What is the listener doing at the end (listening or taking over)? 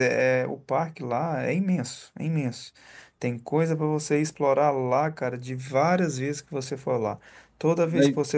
listening